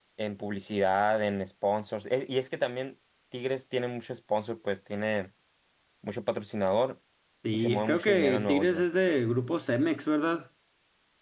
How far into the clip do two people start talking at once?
7.5 s

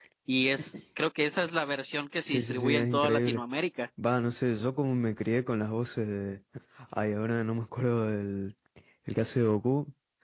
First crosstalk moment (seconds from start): 2.2 s

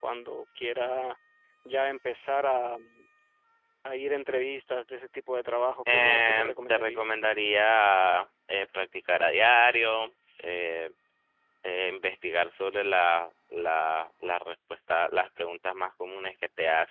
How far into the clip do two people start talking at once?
5.9 s

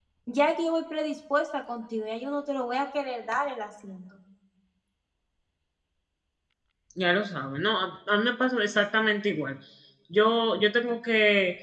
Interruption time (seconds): none

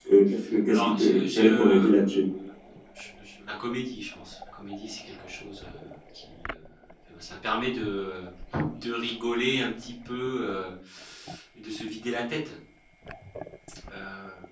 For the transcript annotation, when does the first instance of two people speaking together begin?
0.7 s

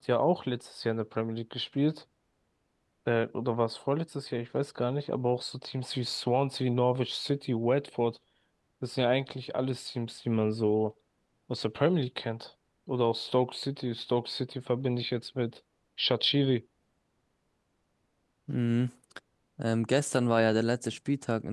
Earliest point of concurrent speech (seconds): none

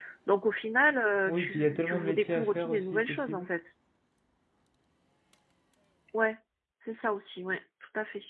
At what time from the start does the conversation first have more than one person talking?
1.3 s

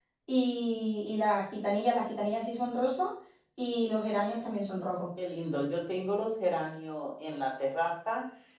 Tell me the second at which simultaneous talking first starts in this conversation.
none

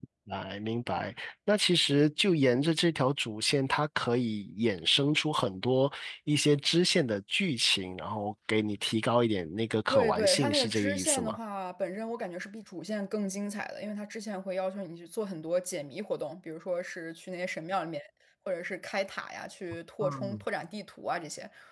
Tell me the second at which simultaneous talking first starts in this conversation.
9.9 s

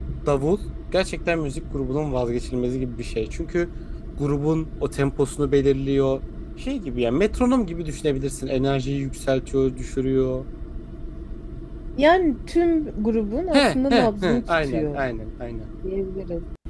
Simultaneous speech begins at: 13.5 s

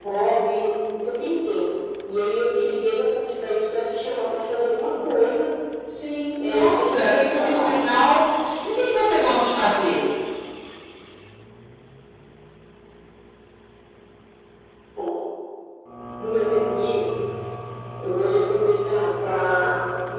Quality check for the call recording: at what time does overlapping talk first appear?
6.5 s

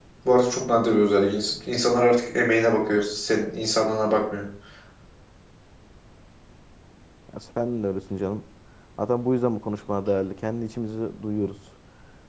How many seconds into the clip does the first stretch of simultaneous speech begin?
none

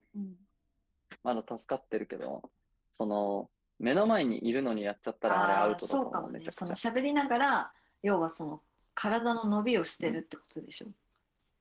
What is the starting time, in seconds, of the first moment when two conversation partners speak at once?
5.2 s

